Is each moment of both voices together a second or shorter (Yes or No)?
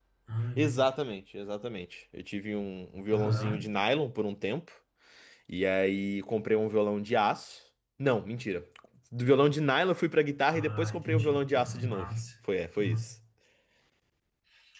No